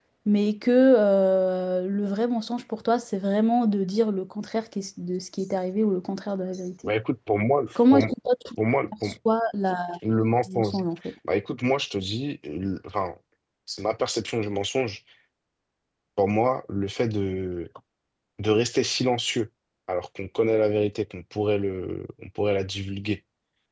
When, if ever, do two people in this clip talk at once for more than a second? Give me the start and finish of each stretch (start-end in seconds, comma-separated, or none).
none